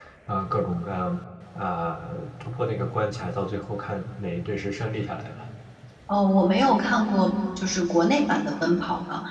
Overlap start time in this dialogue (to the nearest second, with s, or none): none